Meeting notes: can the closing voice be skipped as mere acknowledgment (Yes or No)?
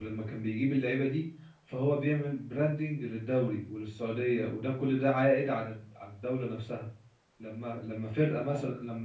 Yes